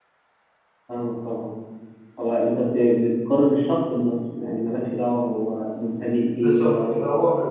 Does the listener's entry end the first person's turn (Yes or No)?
Yes